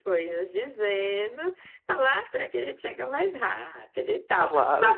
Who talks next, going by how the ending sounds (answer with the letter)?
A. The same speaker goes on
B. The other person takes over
B